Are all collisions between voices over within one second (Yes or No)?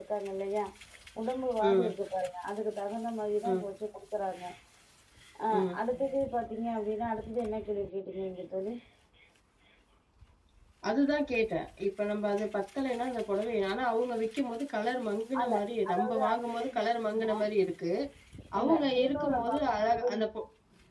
No